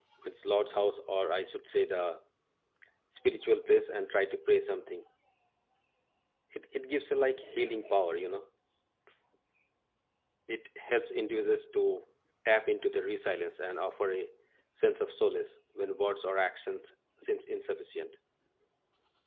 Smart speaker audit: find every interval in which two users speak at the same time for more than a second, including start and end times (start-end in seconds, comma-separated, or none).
none